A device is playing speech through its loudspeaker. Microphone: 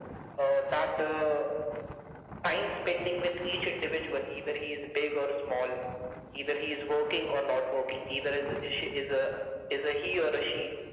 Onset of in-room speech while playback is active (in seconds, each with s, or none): none